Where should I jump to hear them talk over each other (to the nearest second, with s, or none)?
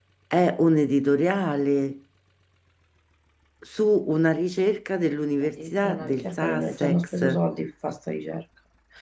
5 s